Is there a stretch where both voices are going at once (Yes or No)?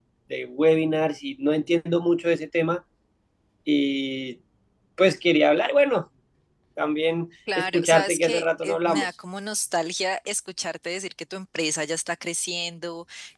Yes